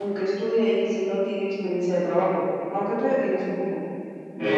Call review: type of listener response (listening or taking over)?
taking over